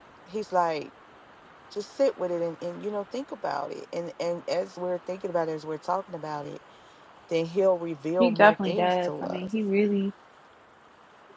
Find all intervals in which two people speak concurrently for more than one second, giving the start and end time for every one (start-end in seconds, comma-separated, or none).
8.2-9.5